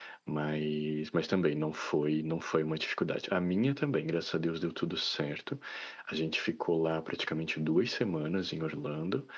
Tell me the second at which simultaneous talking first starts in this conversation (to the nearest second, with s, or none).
none